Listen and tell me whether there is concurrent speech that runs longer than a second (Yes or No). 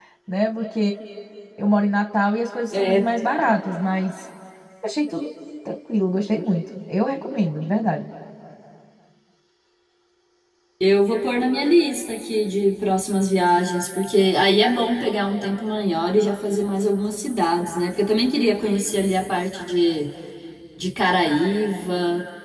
No